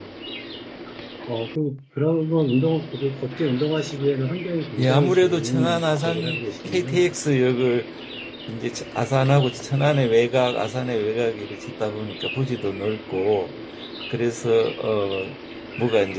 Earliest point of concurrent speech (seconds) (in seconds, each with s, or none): 4.8 s